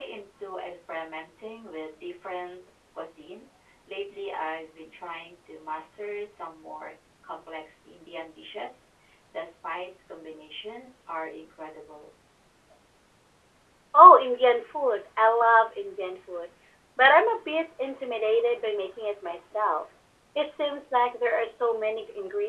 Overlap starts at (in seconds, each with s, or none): none